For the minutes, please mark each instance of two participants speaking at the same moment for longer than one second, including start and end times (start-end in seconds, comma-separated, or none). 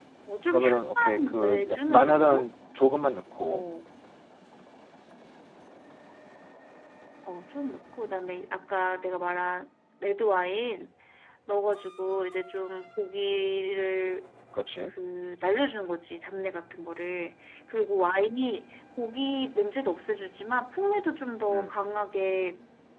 0.5-2.5